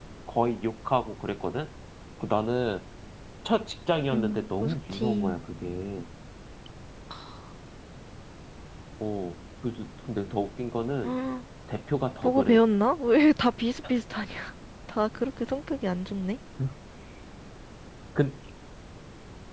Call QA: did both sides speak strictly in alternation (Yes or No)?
No